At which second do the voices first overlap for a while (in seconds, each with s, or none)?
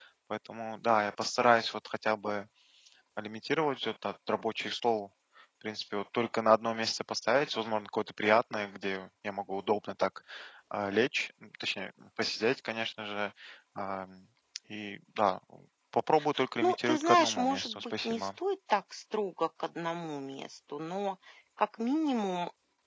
16.6 s